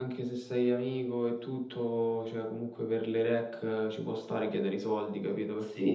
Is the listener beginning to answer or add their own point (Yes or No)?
Yes